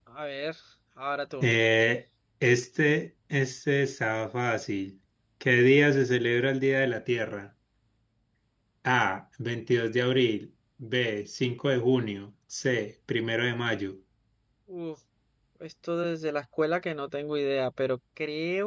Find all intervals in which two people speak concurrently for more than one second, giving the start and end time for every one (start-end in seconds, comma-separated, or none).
none